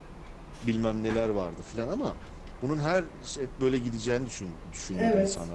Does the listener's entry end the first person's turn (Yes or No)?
No